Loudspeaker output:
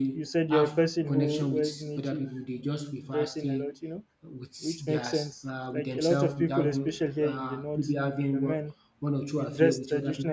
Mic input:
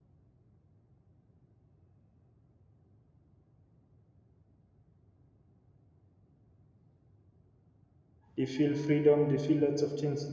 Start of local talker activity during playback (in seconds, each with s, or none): 8.4 s